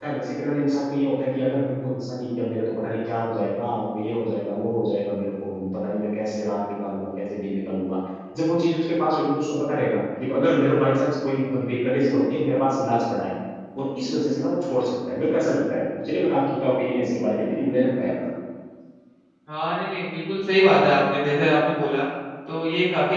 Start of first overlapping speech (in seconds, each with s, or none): none